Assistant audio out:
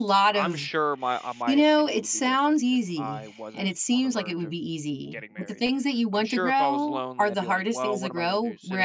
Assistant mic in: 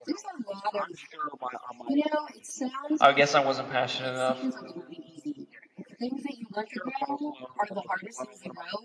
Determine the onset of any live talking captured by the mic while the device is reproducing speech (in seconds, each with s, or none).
3.0 s